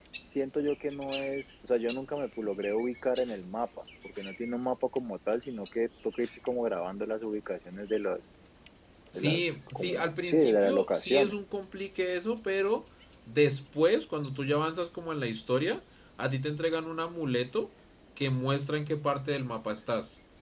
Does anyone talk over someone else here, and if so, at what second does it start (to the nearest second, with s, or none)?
9 s